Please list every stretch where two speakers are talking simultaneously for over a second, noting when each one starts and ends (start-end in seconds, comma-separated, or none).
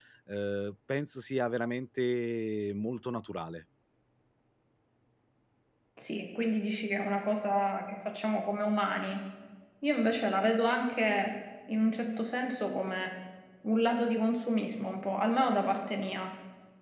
none